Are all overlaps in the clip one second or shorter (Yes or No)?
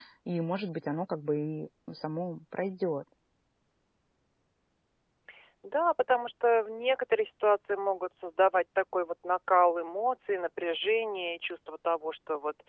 Yes